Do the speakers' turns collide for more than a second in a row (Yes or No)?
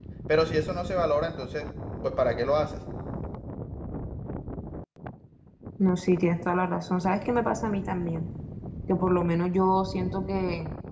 No